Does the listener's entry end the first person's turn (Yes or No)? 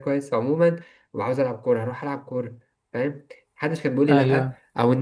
No